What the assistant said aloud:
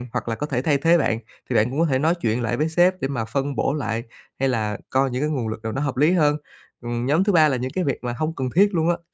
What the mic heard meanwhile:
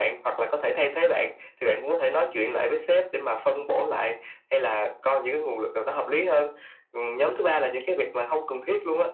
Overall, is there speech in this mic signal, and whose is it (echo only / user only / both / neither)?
echo only